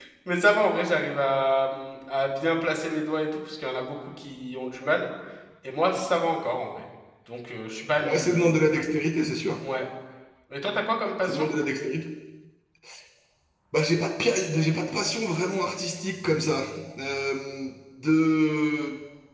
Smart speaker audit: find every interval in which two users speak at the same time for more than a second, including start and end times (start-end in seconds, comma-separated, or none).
none